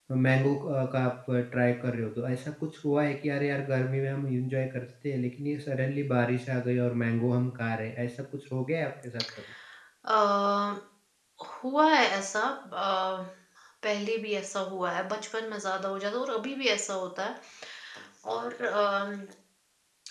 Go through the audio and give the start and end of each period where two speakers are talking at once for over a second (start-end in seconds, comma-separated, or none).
none